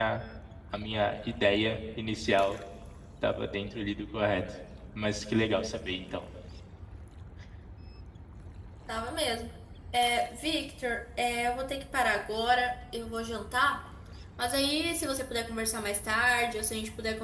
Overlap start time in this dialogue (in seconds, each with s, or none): none